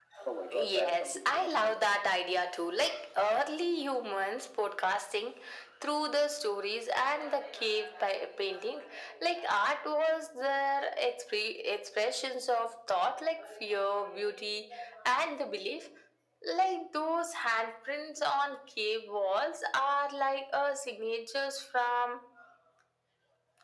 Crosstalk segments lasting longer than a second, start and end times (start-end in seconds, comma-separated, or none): 0.5-1.8